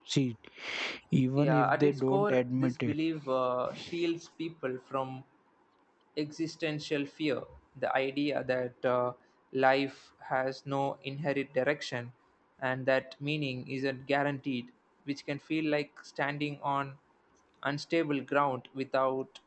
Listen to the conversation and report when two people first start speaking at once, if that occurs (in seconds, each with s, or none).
1.4 s